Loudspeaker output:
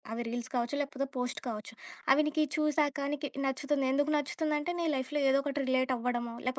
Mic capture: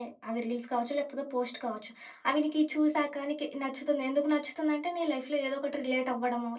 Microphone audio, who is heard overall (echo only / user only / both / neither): echo only